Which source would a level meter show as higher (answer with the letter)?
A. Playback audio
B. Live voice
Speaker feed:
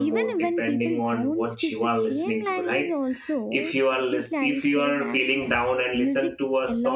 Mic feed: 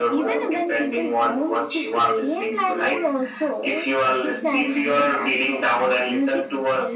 A